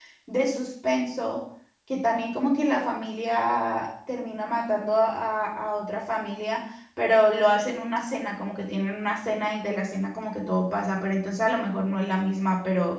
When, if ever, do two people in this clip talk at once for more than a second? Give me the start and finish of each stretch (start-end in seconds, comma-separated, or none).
none